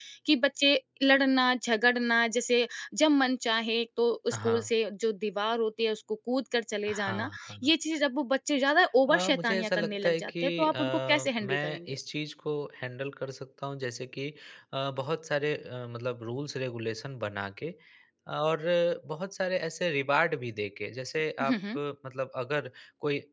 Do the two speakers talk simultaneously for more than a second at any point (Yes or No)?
Yes